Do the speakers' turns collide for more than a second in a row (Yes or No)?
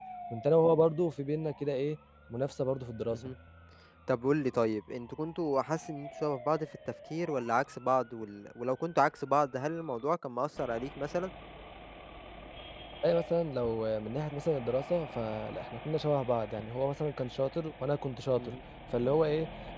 No